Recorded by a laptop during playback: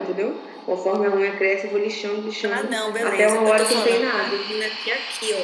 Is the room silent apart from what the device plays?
No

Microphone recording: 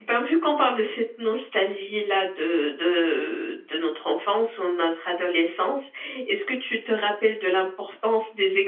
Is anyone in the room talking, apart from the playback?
Yes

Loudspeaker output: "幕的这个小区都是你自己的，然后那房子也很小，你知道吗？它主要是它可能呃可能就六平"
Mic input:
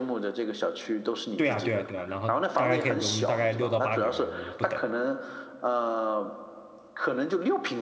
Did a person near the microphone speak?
Yes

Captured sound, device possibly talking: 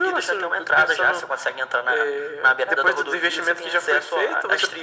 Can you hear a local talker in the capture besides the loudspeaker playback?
No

